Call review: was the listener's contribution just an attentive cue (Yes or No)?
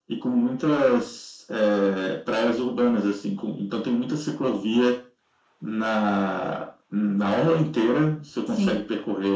Yes